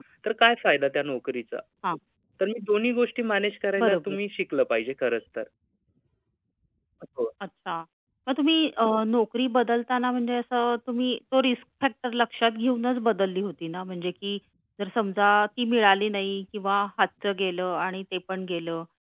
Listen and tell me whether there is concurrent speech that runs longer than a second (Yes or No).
No